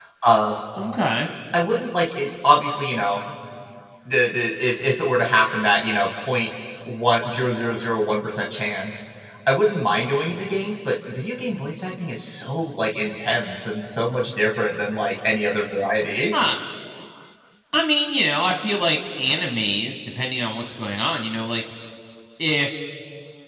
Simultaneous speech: No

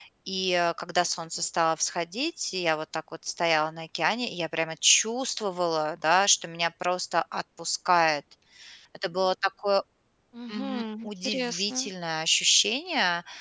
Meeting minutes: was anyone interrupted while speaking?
Yes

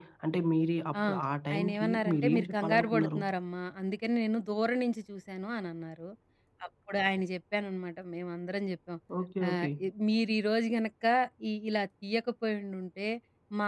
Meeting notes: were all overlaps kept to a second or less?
No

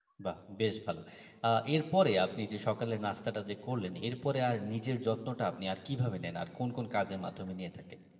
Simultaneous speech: No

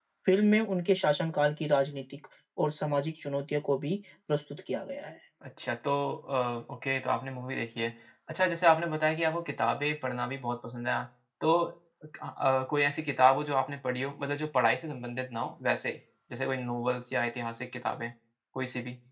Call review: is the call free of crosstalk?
Yes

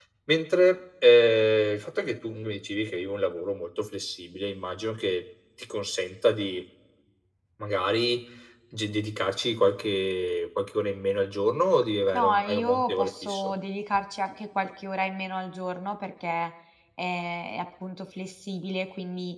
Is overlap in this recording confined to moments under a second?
No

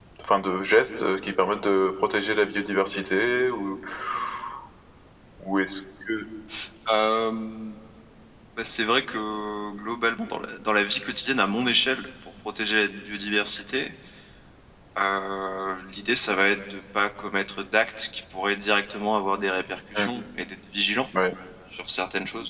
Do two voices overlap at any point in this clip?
No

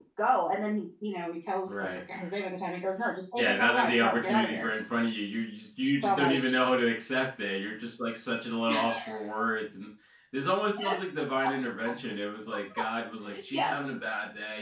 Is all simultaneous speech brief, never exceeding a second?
No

